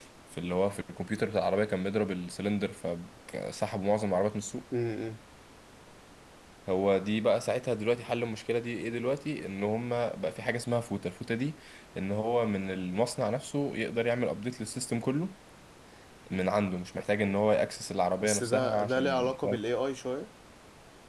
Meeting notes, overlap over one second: present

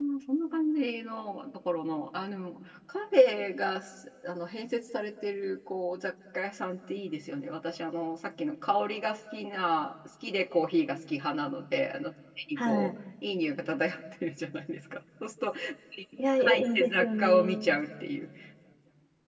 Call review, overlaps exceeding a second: present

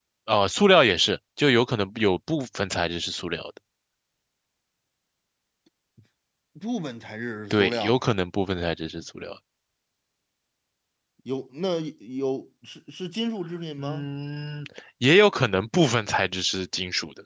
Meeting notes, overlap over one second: none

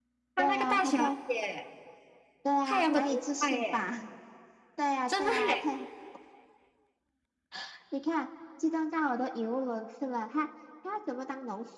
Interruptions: present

